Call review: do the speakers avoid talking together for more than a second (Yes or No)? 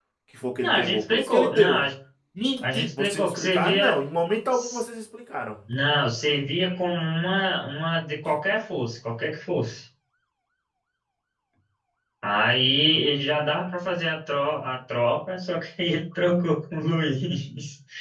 No